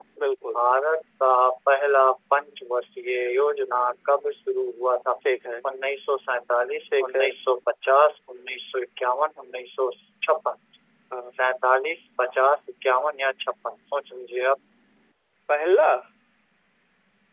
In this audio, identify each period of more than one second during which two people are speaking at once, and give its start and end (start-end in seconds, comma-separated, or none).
none